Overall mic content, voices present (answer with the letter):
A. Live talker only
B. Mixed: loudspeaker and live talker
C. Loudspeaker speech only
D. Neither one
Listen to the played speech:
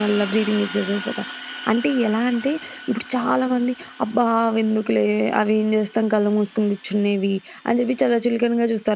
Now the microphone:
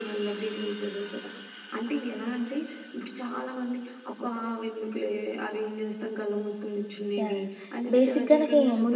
B